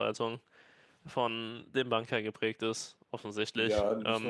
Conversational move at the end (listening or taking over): taking over